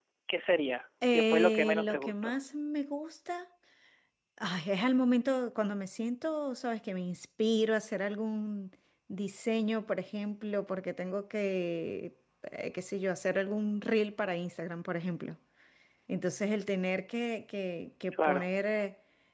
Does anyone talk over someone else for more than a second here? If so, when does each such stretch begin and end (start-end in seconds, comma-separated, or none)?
1.1-2.4